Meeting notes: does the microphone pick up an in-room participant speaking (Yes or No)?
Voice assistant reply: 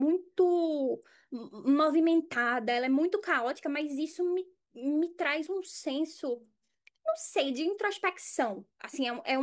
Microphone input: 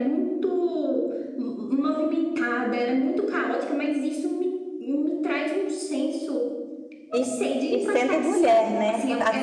Yes